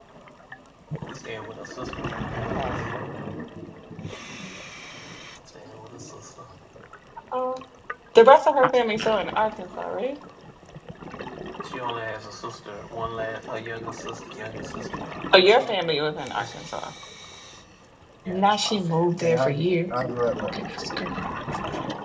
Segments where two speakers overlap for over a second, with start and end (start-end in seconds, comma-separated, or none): 18.3-19.6